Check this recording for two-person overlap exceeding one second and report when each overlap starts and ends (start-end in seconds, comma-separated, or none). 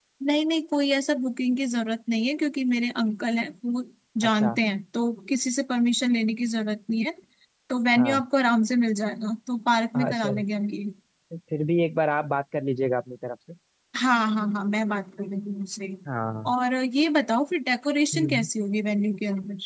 none